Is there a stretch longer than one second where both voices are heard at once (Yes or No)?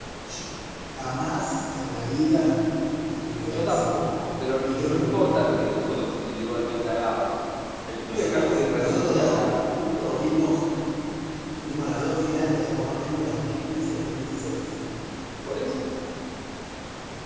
Yes